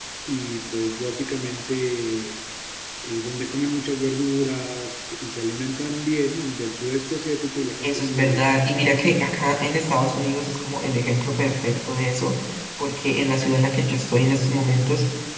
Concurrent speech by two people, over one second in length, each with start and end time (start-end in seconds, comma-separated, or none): 7.8-9.0